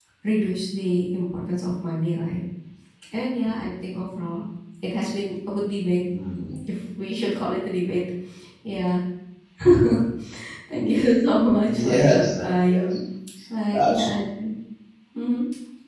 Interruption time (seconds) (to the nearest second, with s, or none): 12 s